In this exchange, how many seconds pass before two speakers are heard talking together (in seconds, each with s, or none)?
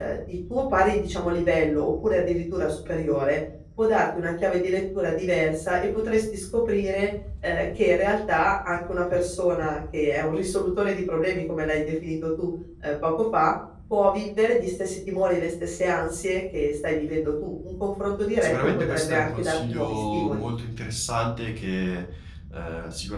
18.4 s